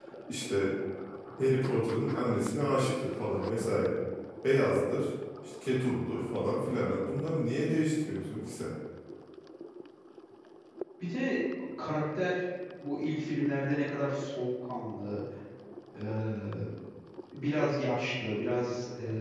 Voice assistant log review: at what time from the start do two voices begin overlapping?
none

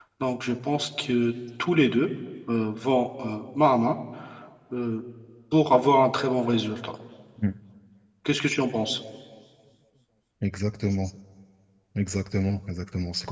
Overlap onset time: none

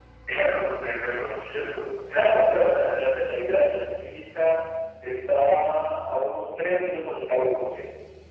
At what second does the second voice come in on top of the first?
none

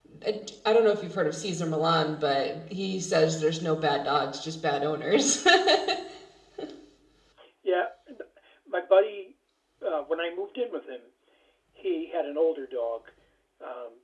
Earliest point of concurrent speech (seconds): none

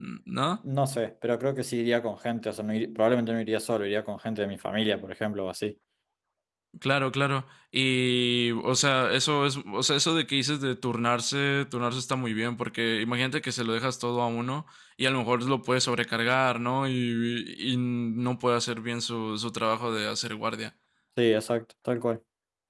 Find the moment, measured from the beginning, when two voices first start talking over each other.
none

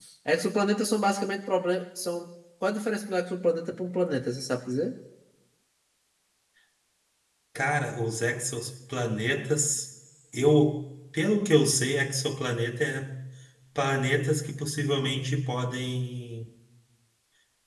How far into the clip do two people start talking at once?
none

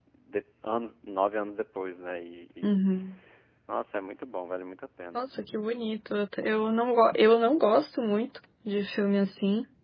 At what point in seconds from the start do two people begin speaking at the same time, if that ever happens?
none

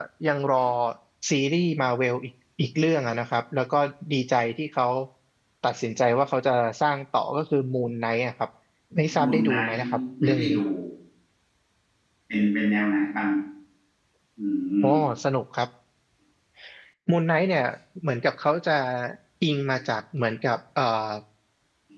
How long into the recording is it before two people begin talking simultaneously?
9.2 s

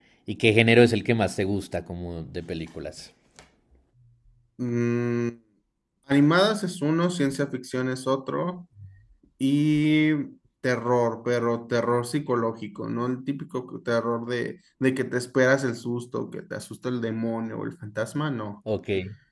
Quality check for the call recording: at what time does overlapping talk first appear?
none

